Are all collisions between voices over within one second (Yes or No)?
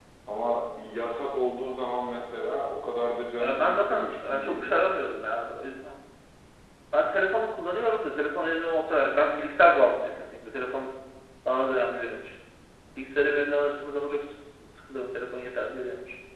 No